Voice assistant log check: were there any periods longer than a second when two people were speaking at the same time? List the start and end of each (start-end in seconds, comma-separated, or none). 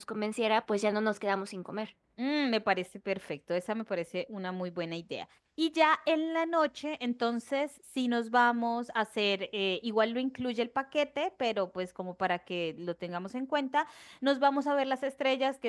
none